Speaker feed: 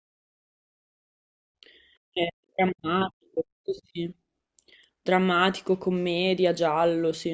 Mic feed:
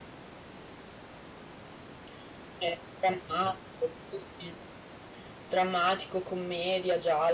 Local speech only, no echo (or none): none